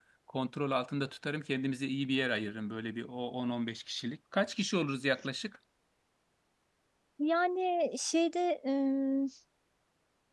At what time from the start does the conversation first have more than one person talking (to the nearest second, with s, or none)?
none